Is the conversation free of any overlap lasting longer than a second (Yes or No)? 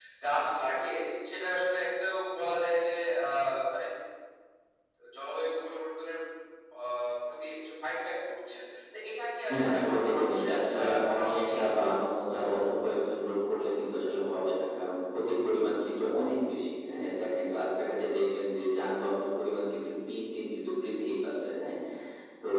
No